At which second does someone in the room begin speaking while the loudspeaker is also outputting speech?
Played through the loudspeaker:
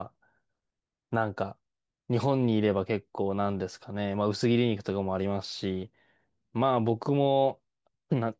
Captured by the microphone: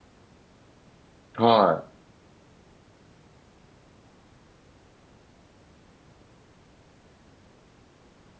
1 s

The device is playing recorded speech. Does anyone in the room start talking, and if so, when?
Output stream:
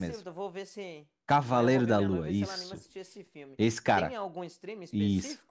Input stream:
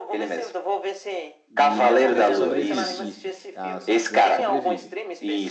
2 s

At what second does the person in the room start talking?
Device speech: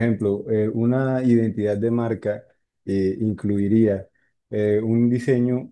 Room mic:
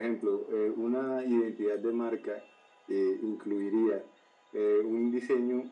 none

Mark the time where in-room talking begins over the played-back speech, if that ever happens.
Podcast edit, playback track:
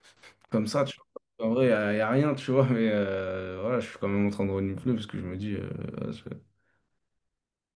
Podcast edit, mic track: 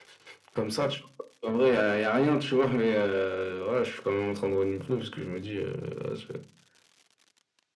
none

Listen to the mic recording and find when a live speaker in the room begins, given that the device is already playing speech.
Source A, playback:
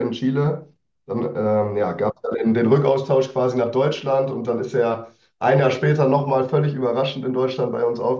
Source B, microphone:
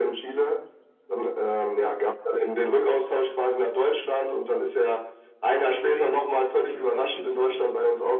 6 s

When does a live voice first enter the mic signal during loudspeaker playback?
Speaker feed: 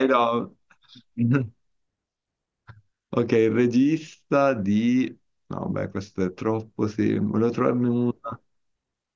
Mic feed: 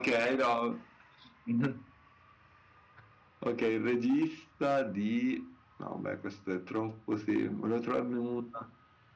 none

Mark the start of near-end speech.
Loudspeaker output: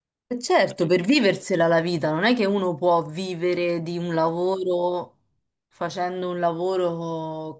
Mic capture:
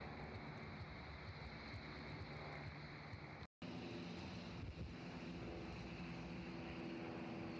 none

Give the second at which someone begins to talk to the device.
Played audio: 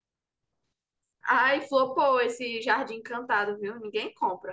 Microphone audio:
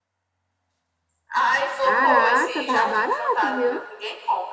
2 s

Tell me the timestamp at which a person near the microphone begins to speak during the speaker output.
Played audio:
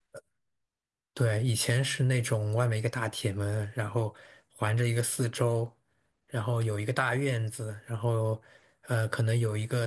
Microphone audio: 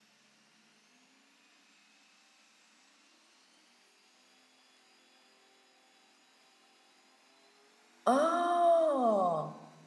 8 s

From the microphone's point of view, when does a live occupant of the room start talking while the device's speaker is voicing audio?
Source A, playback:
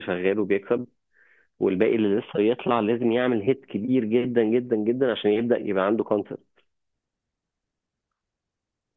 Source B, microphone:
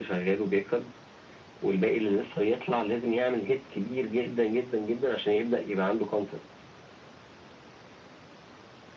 none

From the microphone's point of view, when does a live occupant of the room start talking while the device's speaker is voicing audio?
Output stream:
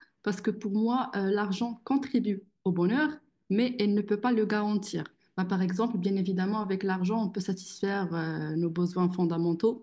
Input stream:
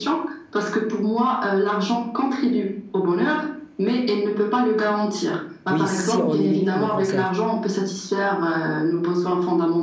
6 s

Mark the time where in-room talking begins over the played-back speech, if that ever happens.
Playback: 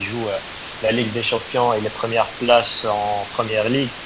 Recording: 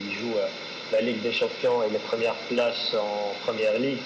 none

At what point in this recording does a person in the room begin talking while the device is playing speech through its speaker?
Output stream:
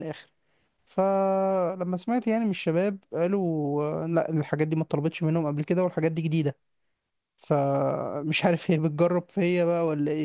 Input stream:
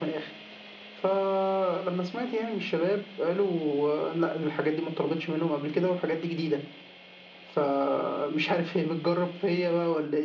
none

